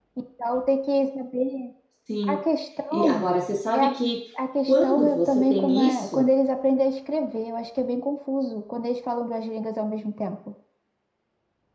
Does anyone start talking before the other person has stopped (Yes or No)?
Yes